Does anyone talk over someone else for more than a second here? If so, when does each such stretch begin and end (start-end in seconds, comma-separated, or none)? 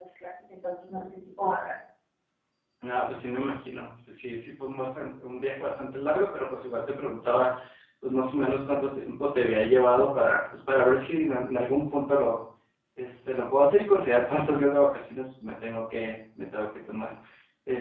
none